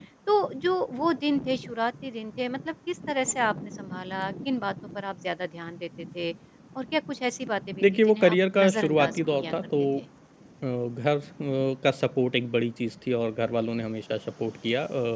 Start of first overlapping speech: 7.8 s

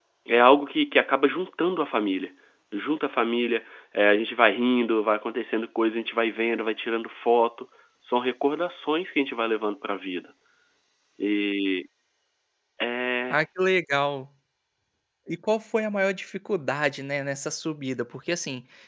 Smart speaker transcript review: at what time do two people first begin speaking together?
none

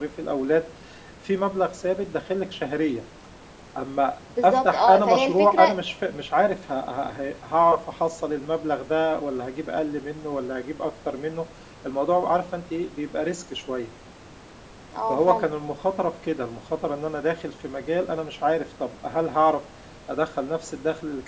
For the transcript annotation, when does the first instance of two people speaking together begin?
4.4 s

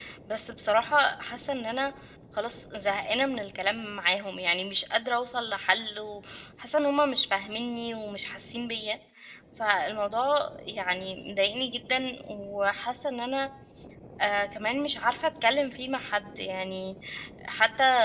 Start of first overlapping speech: none

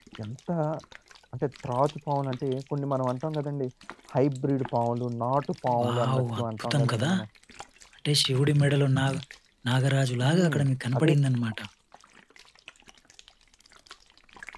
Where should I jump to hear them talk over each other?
5.8 s

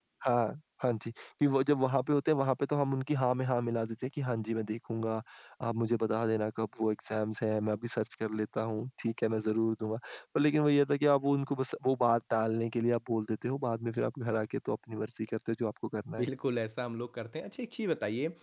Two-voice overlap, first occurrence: none

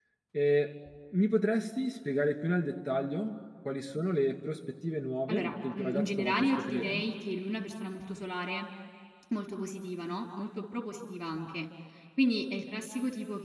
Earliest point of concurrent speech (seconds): 5.3 s

